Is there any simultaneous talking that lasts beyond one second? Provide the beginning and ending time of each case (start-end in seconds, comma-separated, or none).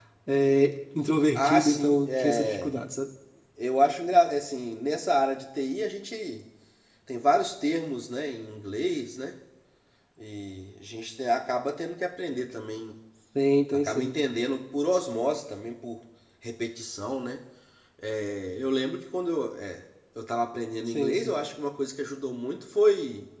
1.3-2.7